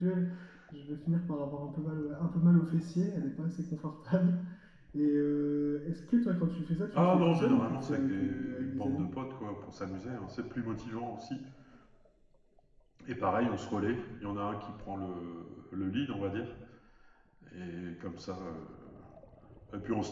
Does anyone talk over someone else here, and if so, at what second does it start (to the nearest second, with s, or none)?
7 s